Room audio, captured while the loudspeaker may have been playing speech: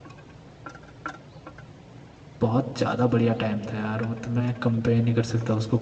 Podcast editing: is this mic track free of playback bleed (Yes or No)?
Yes